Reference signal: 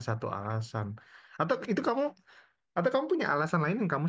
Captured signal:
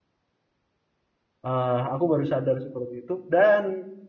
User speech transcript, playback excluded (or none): Eh, aku baru sadar seperti itu dan